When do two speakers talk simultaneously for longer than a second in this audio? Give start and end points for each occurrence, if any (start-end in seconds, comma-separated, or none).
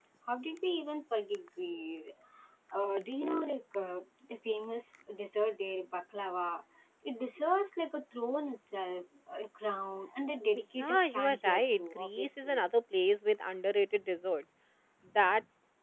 10.8-12.6